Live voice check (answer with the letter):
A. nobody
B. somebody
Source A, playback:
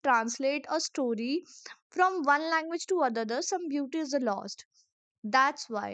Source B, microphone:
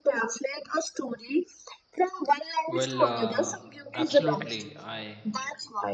B